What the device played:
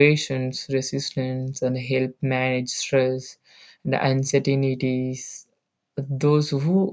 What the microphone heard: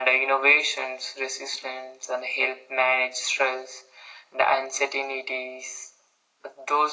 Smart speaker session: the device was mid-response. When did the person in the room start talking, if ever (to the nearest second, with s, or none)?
none